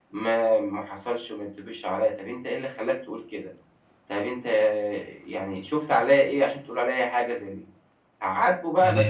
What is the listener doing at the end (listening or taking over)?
taking over